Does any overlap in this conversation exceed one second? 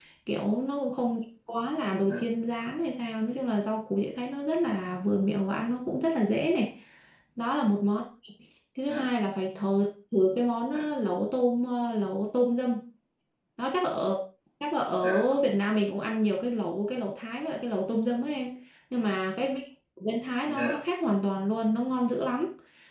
No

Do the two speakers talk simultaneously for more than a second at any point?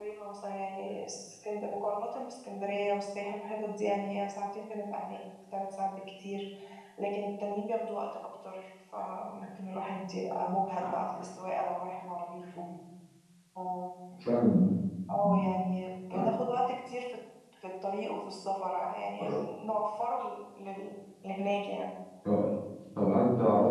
No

